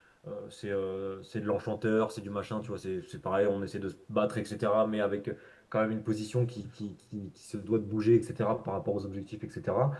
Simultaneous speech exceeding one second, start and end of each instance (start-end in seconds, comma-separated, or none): none